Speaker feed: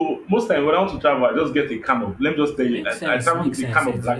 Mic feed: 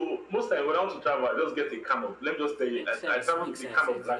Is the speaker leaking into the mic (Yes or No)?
Yes